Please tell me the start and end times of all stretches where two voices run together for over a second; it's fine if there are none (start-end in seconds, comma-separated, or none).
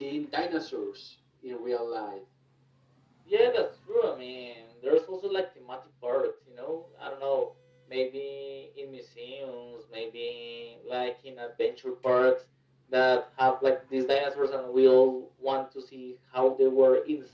none